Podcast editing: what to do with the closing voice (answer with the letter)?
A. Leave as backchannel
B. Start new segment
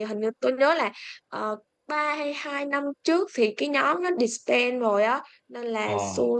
A